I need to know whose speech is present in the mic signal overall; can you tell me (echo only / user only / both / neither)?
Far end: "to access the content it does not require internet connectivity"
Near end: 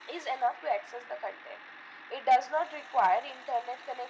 echo only